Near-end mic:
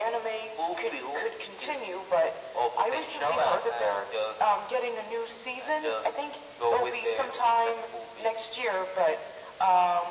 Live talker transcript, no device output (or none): none